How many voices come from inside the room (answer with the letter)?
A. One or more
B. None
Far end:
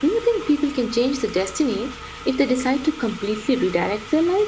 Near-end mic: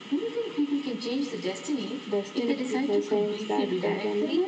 A